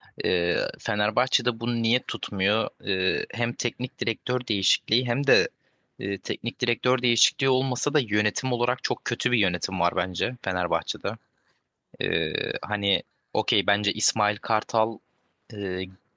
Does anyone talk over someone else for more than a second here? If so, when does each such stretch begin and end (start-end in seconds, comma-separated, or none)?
none